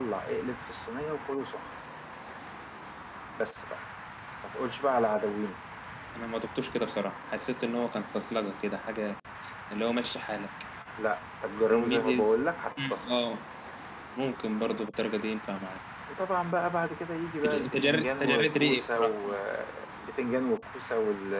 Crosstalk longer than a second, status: present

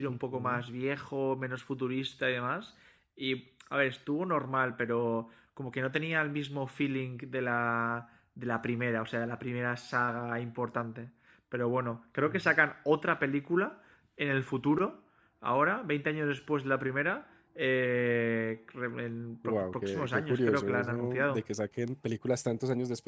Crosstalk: present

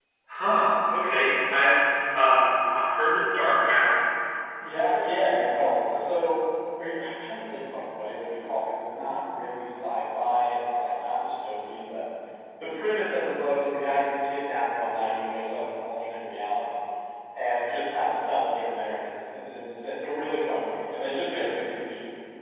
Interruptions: none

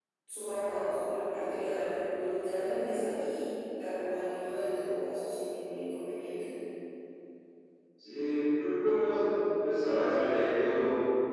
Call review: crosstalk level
none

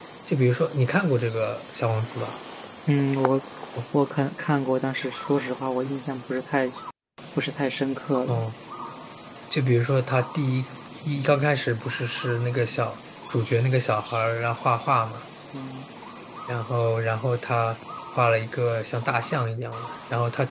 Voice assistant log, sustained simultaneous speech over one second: none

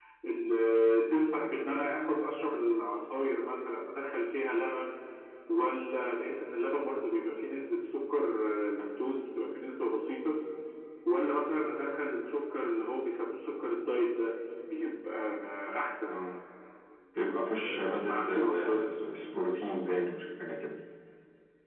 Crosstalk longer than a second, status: present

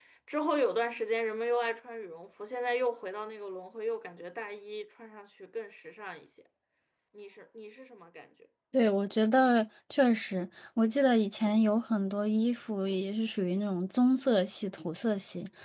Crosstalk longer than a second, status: none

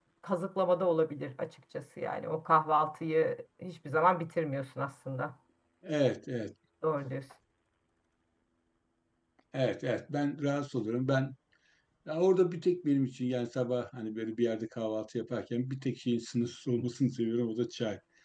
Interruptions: none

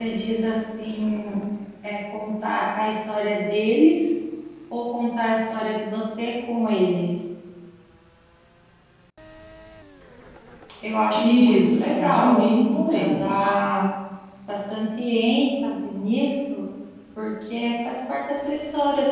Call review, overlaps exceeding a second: present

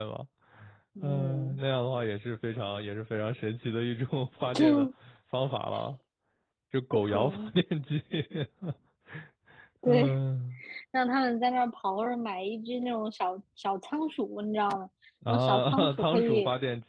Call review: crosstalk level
present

